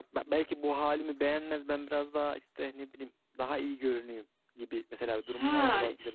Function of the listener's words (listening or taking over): taking over